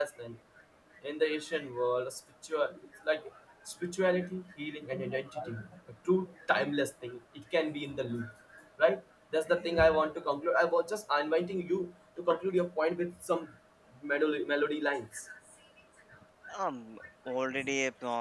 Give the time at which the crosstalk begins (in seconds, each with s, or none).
none